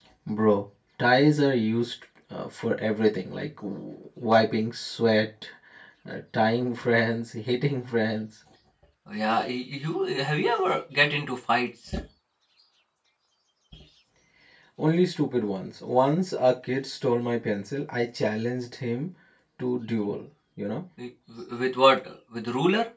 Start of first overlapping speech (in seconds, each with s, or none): none